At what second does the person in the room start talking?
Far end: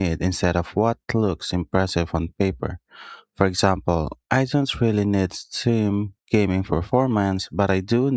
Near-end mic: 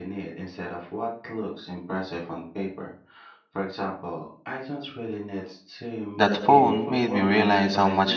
6.2 s

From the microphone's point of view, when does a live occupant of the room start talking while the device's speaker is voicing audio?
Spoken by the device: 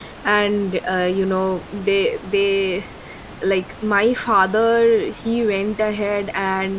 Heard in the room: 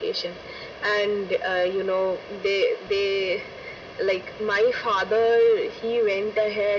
none

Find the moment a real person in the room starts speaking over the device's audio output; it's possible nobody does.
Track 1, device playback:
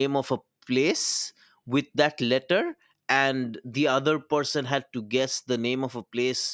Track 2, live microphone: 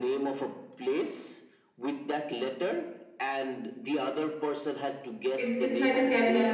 5.4 s

